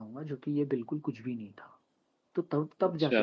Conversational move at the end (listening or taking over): listening